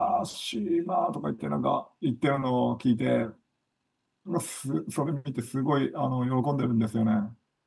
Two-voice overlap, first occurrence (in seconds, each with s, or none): none